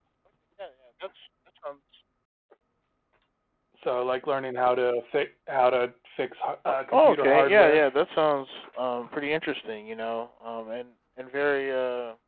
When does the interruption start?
6.7 s

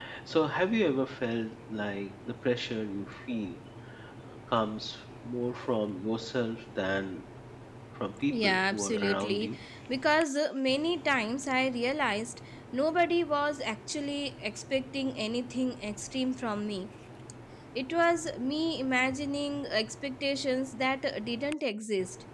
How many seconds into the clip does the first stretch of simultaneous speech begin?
8.3 s

